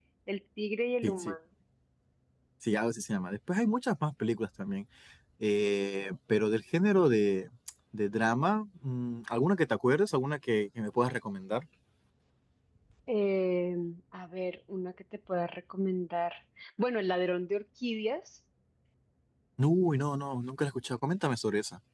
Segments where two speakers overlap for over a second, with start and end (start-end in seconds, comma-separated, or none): none